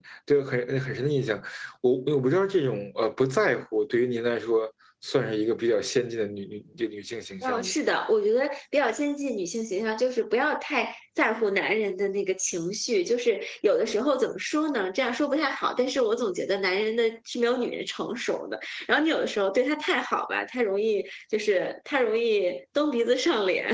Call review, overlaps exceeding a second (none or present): none